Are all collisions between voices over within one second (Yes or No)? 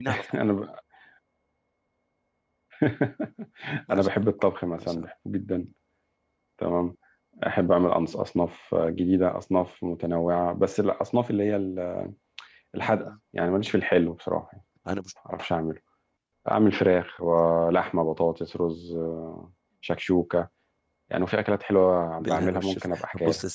No